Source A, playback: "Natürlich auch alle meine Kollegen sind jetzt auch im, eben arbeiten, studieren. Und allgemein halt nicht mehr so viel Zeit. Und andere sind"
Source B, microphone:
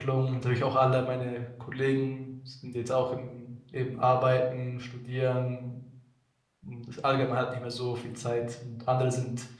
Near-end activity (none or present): none